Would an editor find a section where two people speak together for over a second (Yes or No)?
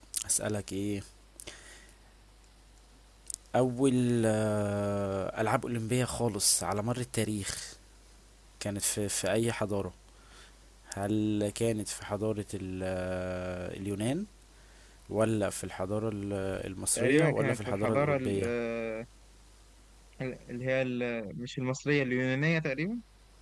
Yes